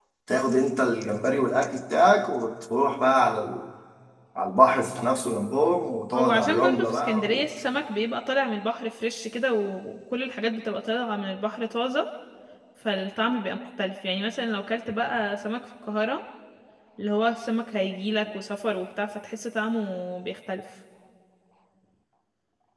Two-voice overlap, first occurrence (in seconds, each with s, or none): 6.1 s